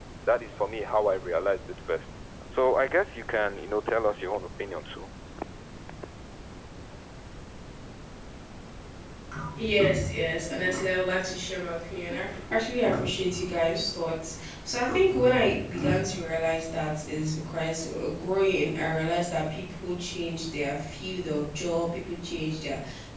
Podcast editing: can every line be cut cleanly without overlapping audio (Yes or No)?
Yes